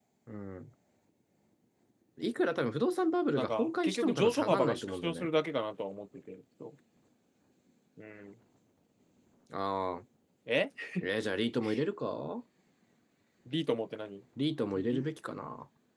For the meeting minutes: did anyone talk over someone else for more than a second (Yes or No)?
Yes